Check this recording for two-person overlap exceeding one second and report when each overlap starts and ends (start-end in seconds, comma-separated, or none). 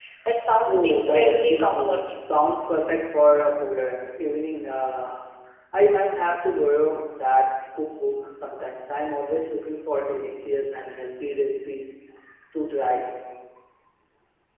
0.7-2.2